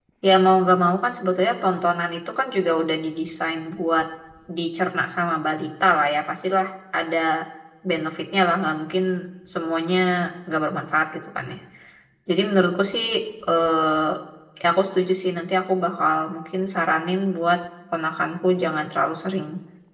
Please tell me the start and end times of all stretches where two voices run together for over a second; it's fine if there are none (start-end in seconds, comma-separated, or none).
none